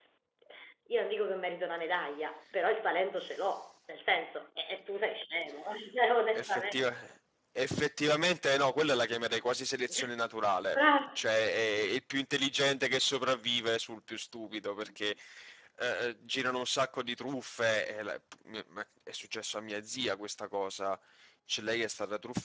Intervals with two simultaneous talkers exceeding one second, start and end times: none

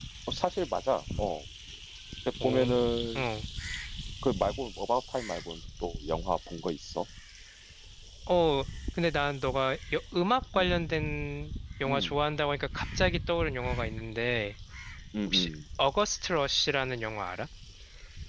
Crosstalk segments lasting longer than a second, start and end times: none

